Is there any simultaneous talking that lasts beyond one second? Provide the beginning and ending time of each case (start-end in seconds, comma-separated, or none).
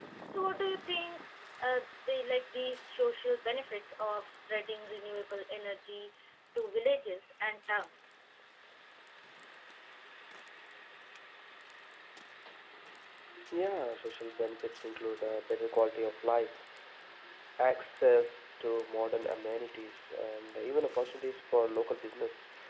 none